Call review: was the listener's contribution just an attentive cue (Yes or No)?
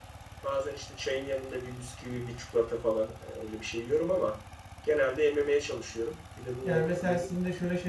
No